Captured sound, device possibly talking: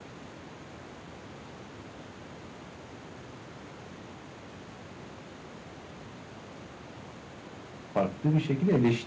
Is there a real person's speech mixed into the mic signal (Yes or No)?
Yes